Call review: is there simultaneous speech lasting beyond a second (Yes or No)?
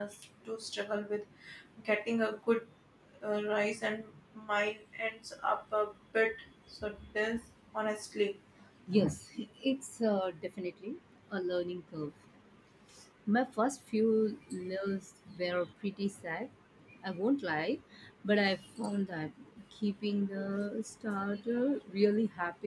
No